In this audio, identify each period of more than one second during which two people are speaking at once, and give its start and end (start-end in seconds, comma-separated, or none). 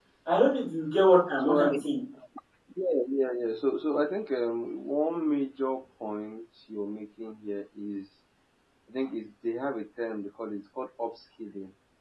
none